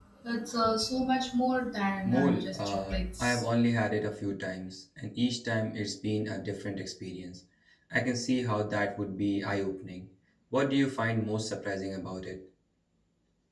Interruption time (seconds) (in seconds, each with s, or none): 2.0 s